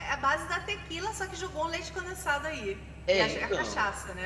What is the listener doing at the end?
taking over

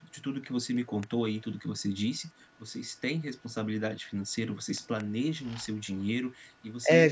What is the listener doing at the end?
taking over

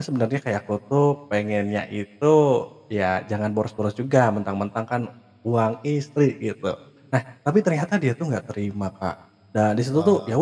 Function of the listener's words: listening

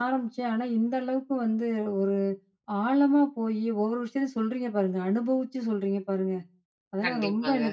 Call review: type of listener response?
listening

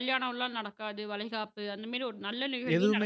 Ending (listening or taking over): taking over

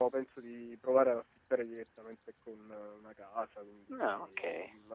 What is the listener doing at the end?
listening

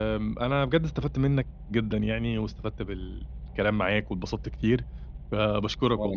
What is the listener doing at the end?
listening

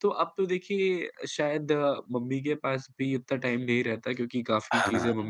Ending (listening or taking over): listening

